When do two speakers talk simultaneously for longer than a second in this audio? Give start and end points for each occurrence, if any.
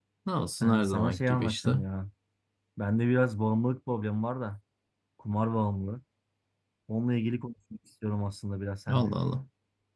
0.6-1.8

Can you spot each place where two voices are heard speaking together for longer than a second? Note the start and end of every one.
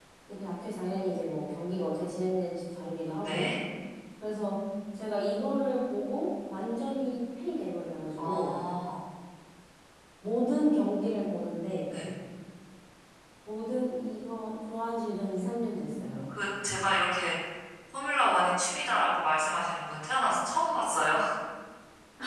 none

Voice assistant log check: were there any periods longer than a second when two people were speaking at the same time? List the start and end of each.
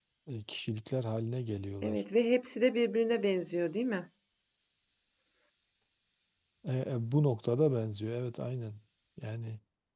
none

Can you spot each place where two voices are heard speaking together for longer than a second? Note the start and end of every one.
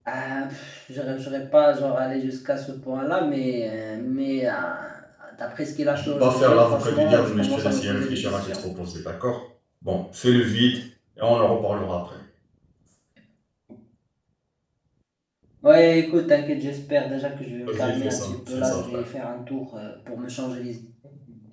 5.9-8.7, 17.7-19.0

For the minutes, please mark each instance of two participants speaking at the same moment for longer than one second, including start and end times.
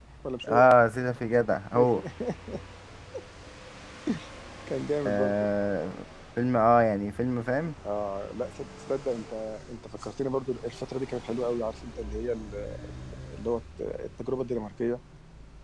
none

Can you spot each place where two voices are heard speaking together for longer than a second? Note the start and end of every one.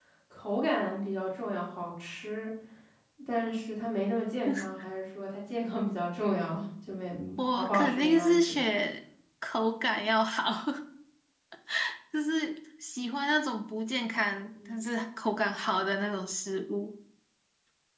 7.4-8.6

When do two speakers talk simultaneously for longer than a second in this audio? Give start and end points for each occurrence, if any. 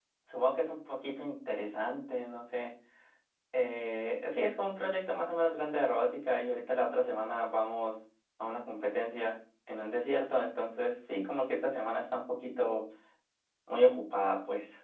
none

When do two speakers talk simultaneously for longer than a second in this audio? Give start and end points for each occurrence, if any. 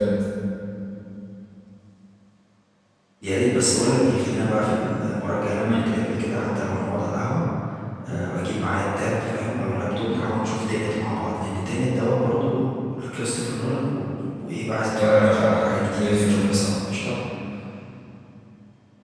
14.9-16.6

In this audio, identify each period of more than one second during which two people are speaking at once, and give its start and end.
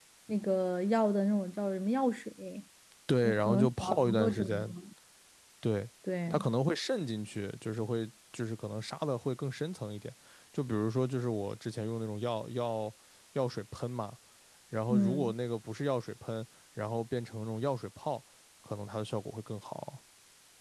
3.2-4.7

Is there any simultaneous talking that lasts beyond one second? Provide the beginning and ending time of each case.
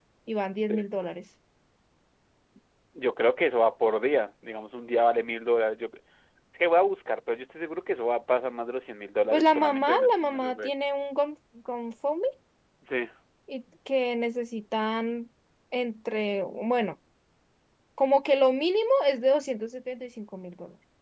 9.3-10.7

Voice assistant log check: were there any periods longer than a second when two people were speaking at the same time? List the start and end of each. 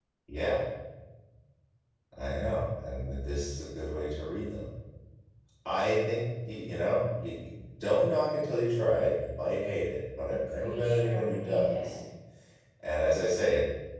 10.3-12.0

